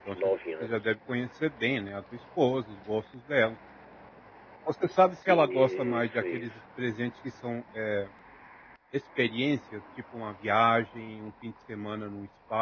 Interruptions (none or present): present